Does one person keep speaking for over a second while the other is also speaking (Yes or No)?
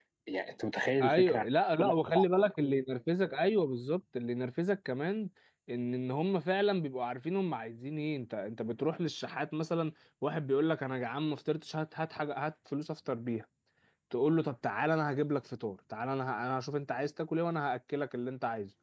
No